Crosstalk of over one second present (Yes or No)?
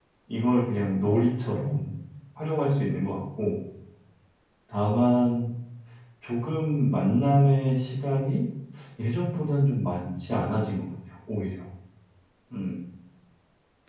No